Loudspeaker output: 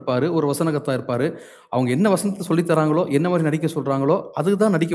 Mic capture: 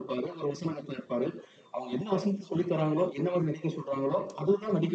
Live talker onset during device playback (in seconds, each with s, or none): none